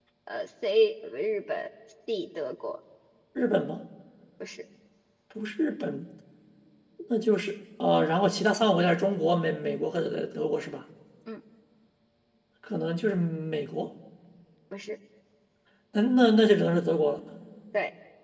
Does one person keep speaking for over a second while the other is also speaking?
No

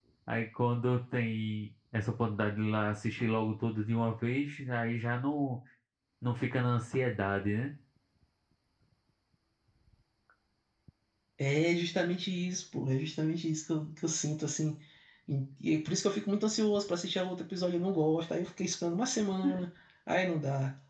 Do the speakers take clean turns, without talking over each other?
Yes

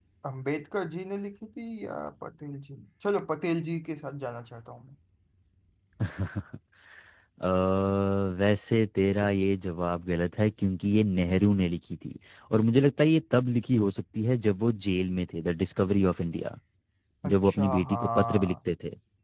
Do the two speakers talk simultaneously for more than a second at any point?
Yes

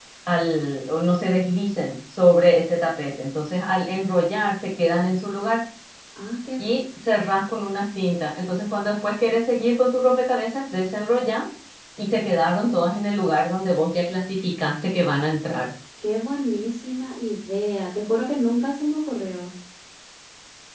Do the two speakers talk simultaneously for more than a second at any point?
No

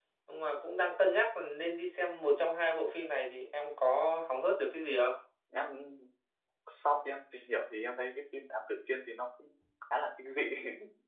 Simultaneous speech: No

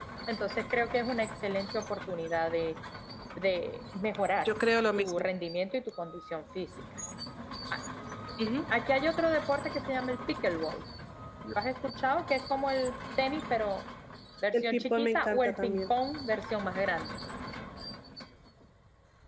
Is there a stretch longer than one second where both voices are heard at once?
Yes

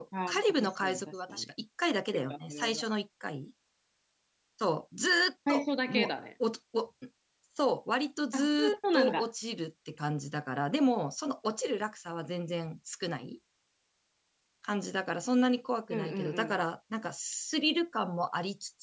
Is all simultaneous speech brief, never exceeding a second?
No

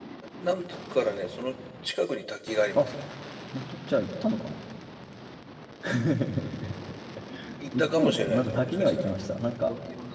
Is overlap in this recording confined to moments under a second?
No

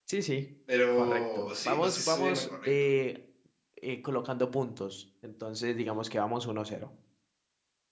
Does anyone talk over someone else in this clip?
Yes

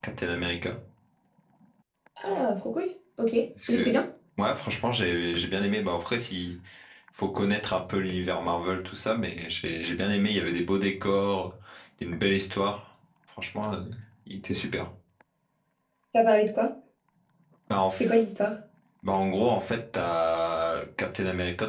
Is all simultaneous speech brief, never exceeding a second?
Yes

